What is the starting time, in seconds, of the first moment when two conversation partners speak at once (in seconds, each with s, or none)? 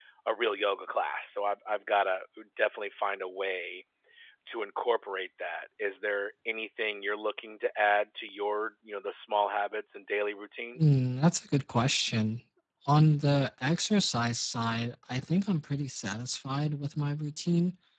none